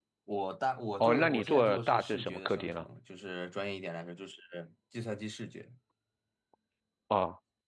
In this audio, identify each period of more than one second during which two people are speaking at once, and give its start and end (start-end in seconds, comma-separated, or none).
1.0-2.8